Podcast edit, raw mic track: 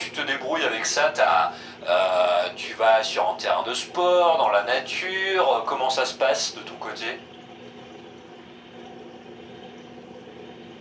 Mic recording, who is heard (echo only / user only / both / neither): echo only